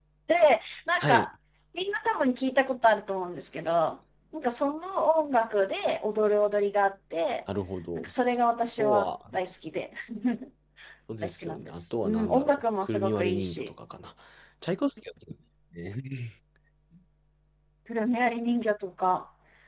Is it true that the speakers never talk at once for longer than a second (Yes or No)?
No